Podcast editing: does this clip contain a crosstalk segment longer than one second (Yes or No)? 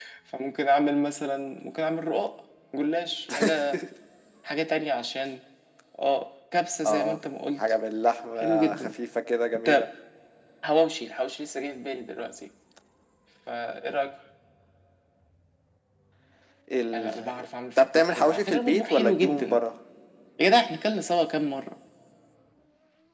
Yes